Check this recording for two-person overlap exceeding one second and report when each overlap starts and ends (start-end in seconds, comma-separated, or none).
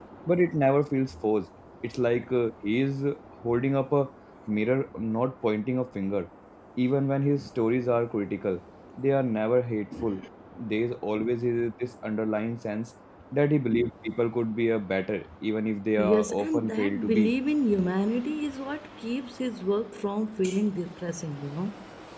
16.0-17.3